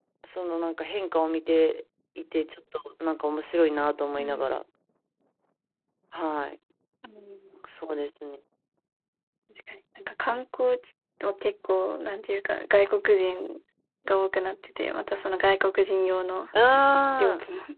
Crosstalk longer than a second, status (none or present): none